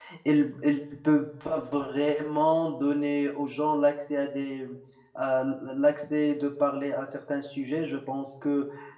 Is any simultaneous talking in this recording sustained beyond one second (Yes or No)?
No